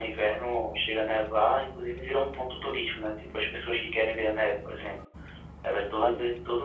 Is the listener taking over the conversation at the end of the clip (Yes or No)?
No